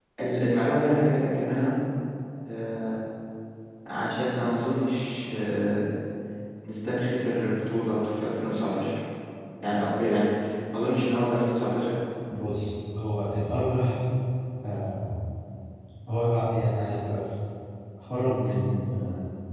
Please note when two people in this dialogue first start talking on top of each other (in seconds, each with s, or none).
none